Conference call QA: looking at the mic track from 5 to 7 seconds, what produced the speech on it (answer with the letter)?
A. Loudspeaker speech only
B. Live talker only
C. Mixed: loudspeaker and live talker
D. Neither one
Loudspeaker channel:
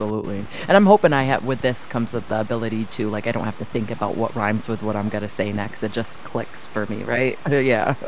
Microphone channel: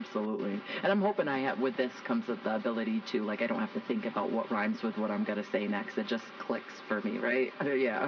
A